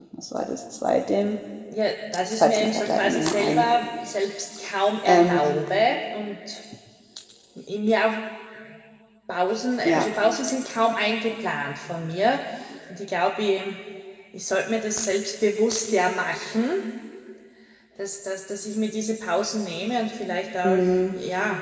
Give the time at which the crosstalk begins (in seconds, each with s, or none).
2.4 s